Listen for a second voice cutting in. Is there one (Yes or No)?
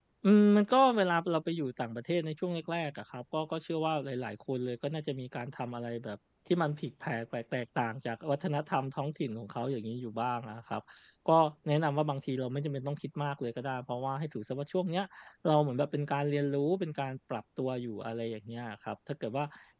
No